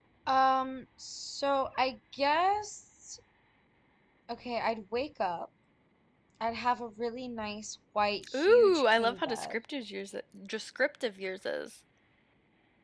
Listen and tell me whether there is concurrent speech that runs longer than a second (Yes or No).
Yes